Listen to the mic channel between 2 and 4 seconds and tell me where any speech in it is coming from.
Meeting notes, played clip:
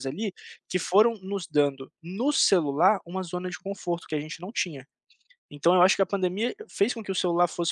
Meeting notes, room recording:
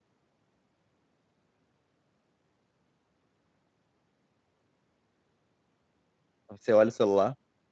neither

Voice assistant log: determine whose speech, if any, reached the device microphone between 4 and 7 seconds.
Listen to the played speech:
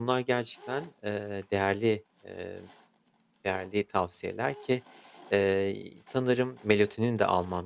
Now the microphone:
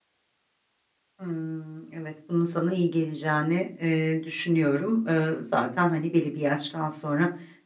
user only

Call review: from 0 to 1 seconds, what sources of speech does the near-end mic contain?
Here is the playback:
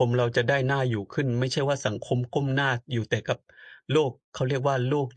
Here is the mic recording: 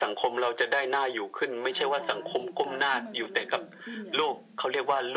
echo only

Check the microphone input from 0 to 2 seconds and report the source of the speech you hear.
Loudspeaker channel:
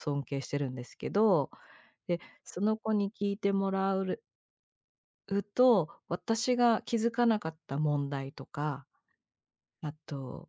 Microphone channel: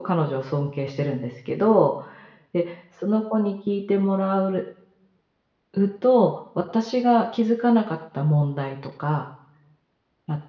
echo only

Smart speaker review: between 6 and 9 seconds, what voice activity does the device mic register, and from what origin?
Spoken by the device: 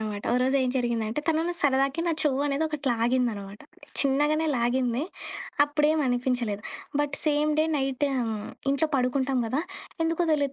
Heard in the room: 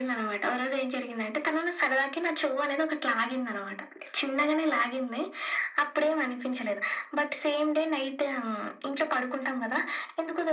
echo only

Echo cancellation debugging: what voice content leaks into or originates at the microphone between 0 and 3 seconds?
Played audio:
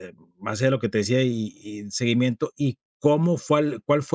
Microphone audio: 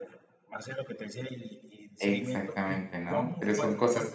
both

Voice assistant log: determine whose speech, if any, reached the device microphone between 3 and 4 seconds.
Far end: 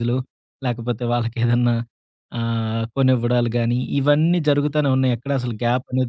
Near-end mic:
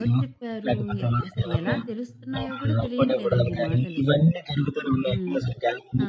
both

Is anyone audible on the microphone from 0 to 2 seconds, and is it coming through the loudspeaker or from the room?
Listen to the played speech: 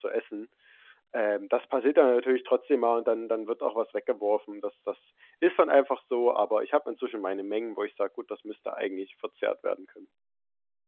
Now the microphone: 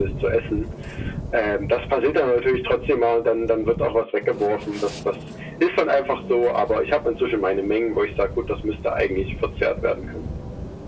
echo only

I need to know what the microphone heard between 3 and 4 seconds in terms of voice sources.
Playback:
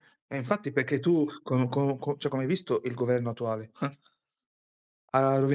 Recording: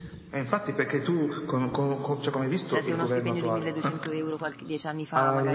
both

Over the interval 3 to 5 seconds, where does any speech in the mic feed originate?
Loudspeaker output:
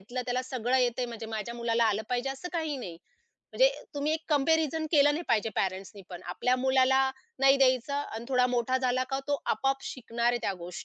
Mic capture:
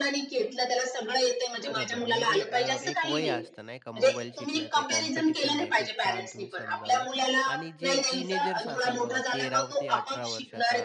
both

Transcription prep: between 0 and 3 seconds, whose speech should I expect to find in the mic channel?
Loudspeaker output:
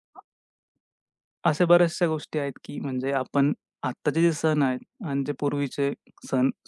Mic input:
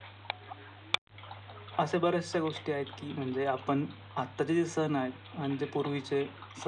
echo only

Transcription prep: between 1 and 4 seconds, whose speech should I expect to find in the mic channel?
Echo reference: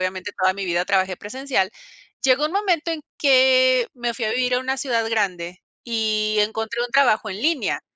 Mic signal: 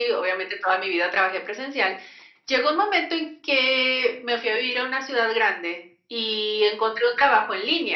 echo only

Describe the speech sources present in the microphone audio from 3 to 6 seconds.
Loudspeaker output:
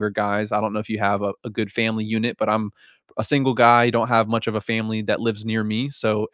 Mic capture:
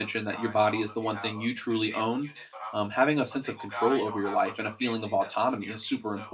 both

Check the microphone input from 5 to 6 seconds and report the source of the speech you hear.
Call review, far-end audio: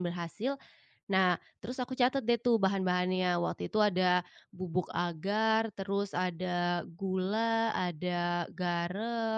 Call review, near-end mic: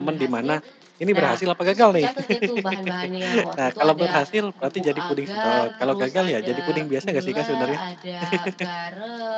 both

